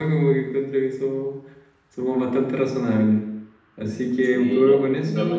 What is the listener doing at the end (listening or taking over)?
taking over